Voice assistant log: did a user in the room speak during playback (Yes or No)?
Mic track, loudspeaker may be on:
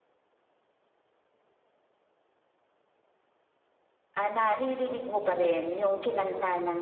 Yes